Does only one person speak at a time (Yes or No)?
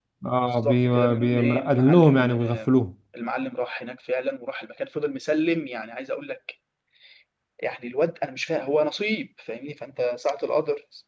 No